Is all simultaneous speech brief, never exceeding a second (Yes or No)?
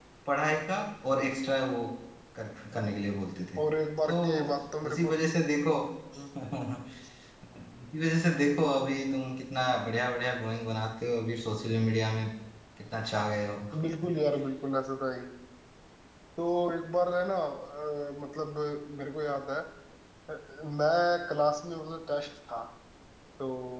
Yes